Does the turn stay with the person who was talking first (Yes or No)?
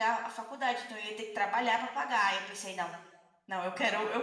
No